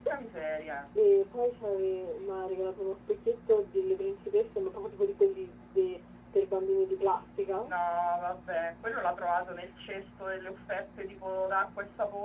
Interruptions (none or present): none